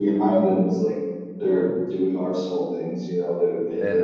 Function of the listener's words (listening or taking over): listening